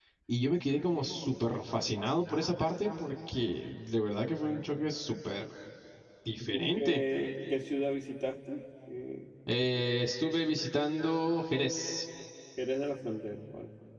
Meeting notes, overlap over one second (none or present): none